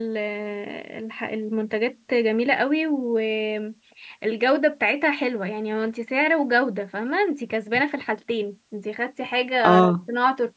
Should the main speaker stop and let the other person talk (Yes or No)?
No